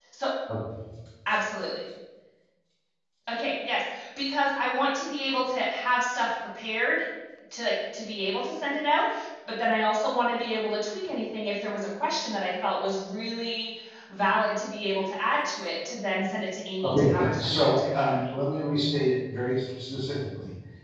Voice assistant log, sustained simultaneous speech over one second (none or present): present